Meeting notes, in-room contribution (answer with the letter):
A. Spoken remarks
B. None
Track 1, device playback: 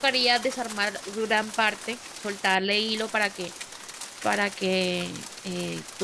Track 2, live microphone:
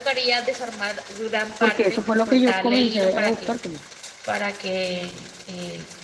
A